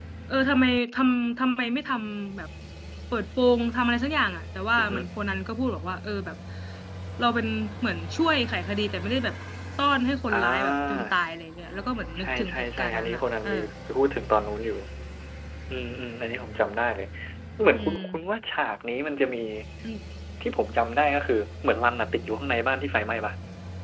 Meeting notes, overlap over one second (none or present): present